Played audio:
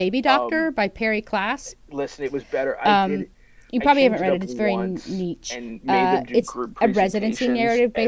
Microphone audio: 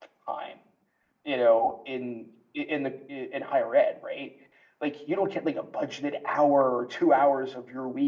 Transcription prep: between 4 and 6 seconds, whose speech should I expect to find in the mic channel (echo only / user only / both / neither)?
user only